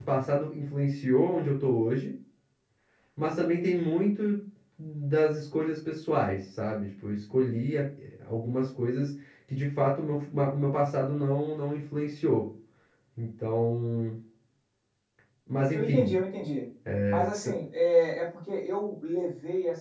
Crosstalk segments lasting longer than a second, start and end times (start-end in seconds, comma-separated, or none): none